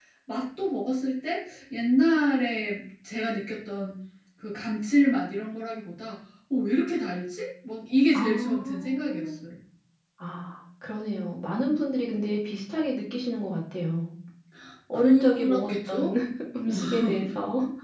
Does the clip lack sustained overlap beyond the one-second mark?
No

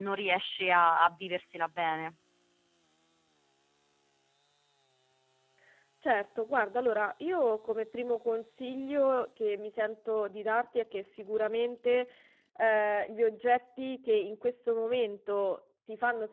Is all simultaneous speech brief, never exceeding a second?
Yes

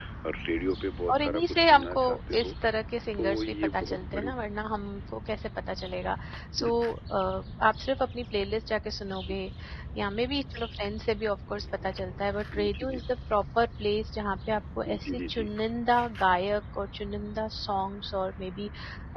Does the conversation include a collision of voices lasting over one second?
Yes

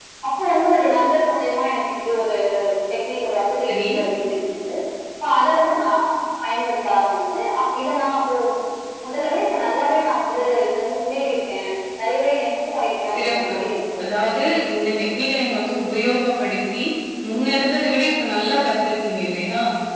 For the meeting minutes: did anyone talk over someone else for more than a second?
No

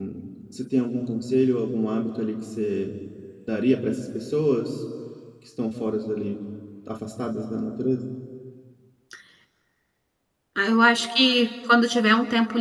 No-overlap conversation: Yes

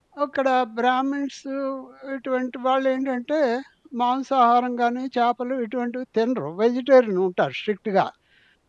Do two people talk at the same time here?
No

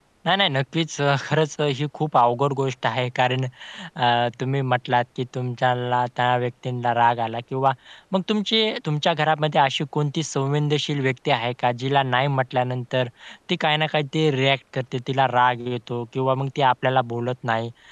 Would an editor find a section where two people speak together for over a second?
No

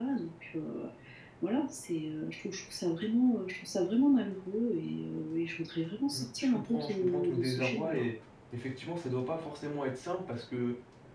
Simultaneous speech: Yes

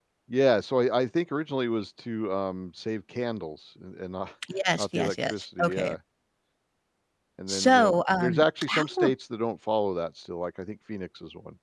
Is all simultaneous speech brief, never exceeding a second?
No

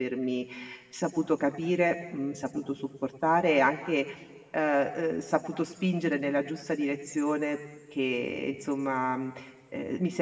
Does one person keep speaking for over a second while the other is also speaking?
No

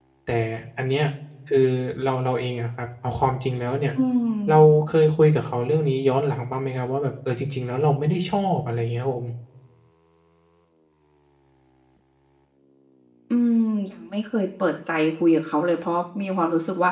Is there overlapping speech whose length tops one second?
No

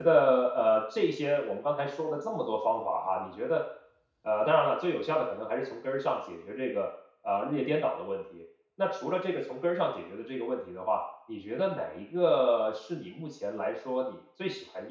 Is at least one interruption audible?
No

